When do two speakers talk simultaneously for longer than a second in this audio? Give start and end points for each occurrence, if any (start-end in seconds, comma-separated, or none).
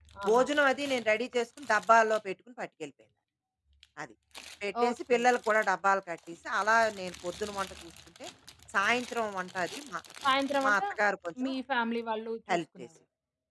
none